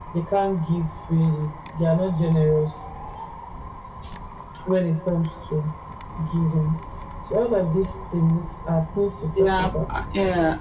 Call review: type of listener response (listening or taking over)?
taking over